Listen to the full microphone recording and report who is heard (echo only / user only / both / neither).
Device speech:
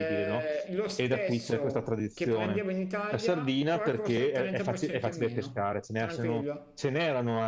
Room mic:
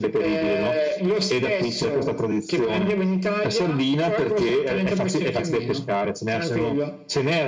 echo only